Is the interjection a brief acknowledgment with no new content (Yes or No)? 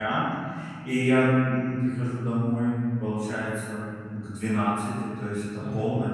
Yes